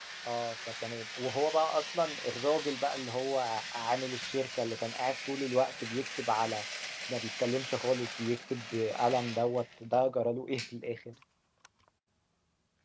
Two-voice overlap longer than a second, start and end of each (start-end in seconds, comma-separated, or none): none